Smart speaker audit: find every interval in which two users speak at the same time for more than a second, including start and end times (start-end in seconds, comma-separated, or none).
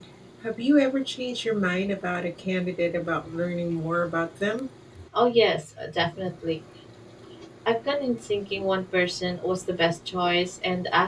none